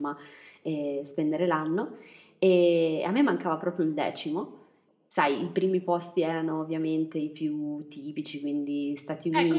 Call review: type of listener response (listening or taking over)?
taking over